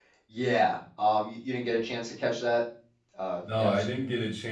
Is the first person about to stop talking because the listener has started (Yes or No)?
Yes